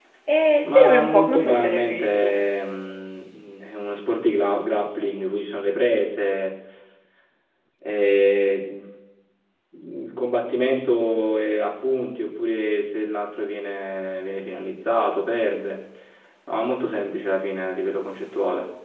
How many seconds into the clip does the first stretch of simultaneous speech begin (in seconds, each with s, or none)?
0.6 s